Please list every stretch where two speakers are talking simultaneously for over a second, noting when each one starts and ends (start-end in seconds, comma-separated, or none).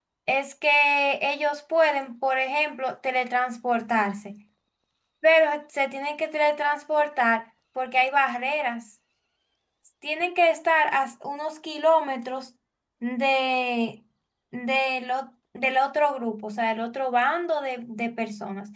none